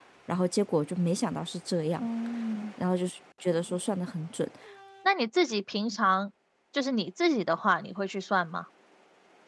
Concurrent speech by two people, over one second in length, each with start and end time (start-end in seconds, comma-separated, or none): none